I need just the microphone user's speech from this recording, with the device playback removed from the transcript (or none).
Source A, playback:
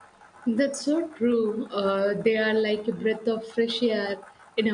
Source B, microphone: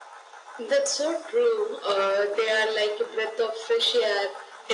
none